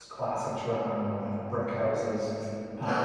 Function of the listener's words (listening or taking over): listening